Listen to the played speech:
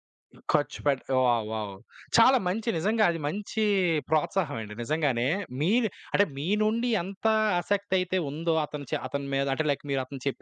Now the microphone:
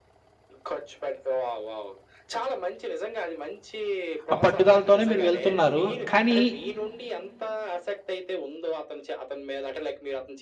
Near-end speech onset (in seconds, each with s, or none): 4.3 s